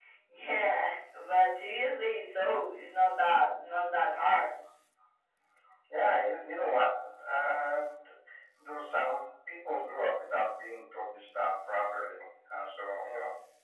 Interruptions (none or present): none